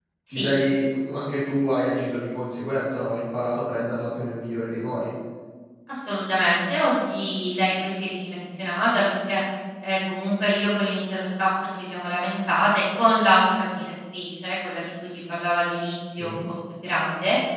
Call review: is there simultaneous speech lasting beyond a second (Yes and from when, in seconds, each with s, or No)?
No